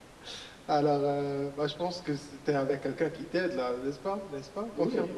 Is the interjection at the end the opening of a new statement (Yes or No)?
Yes